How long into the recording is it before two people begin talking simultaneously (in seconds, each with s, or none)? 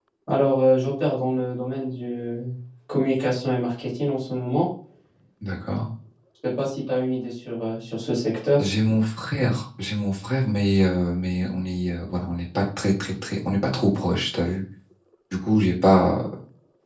none